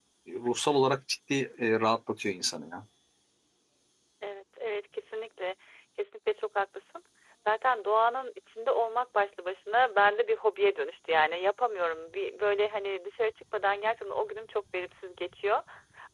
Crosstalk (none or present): none